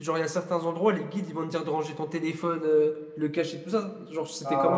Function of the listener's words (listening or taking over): taking over